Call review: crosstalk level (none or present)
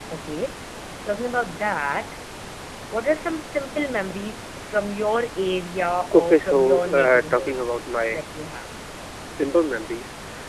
present